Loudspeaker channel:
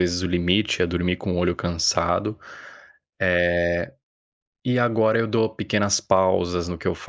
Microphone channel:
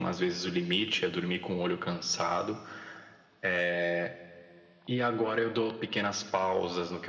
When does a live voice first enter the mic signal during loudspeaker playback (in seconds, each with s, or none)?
none